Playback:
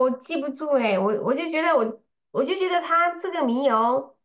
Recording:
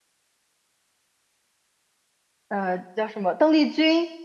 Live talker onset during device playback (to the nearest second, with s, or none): 2 s